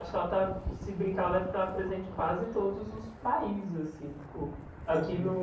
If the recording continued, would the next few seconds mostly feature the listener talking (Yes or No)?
No